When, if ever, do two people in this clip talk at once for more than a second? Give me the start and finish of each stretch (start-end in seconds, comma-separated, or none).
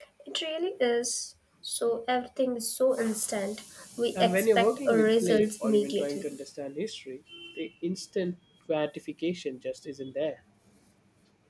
4.2-6.4